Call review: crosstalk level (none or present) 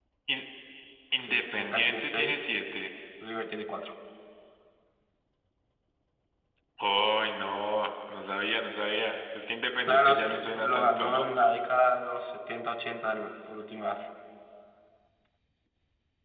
present